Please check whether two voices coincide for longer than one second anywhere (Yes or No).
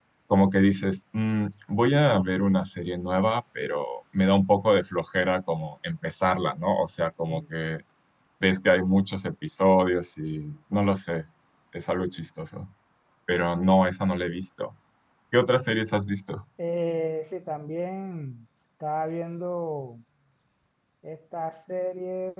No